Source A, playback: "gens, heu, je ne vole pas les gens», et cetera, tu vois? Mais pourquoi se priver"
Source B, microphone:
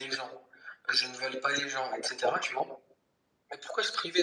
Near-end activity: none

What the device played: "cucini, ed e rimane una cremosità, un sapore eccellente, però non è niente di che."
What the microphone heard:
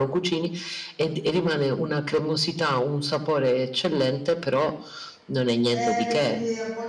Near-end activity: present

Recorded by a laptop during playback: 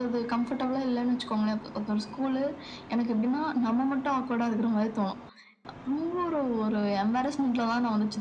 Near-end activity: none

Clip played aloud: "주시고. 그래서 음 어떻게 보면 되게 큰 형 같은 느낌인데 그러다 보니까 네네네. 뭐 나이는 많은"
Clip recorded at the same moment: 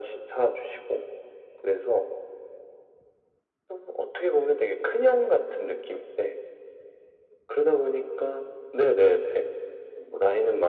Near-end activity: none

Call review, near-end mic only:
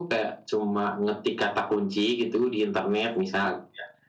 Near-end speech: none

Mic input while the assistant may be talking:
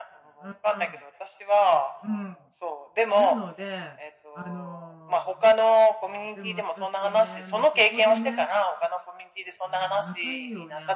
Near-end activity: present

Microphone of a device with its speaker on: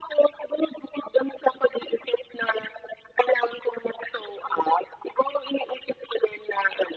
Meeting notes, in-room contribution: none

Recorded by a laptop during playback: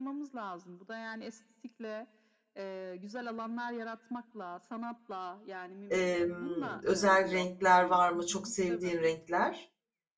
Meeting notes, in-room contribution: present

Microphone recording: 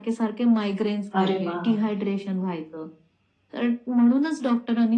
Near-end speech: present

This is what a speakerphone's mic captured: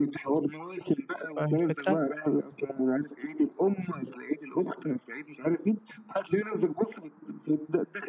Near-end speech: present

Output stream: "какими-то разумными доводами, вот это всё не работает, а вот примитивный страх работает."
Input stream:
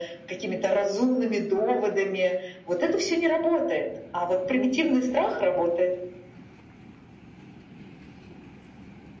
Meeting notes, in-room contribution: none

